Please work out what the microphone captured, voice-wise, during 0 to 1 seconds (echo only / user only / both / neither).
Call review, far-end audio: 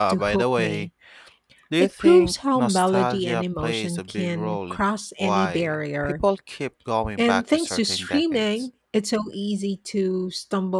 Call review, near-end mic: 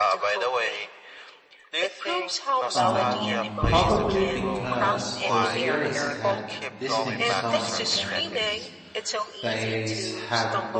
echo only